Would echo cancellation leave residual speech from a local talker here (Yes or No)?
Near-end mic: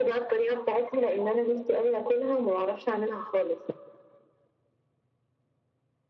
No